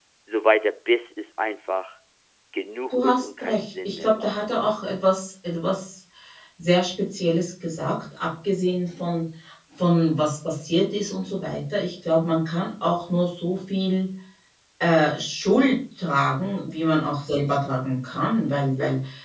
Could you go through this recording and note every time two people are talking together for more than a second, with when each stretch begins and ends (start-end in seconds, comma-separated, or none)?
2.9-4.4